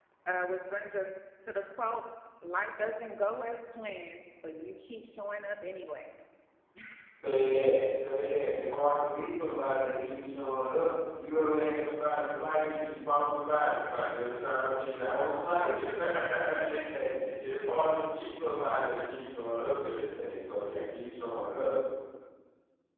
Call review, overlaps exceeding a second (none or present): none